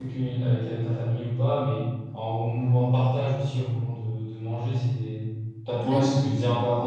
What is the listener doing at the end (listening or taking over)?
listening